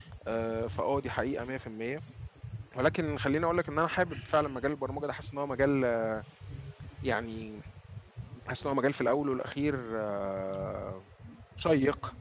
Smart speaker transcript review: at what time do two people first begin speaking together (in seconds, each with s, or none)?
none